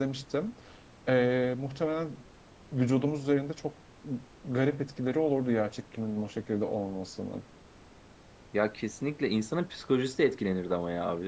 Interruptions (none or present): none